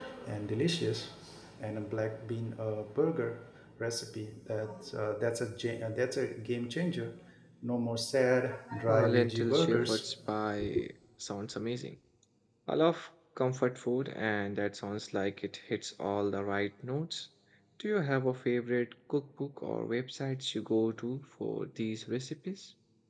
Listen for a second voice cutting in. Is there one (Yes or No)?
Yes